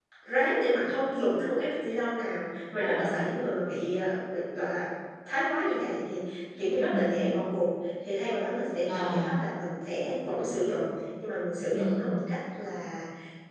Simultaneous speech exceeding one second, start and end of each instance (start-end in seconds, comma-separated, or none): none